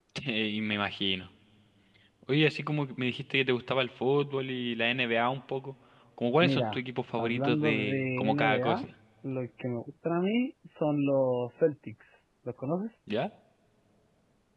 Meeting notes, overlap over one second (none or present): present